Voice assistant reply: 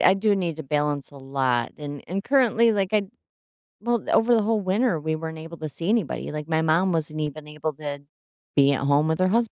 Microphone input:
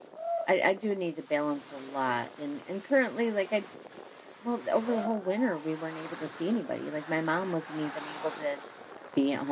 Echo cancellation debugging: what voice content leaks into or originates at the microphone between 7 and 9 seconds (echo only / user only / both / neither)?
echo only